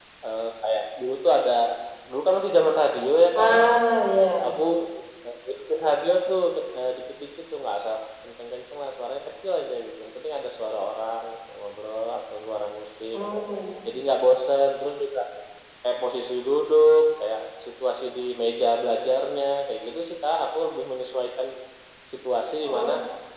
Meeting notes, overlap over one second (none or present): none